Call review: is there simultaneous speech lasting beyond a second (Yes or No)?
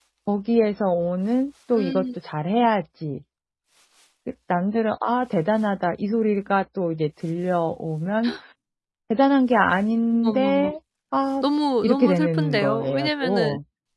Yes